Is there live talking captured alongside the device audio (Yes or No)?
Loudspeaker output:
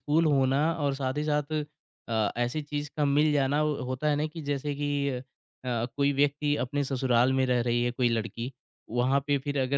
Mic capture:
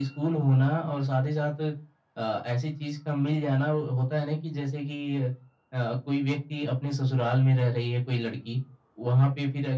No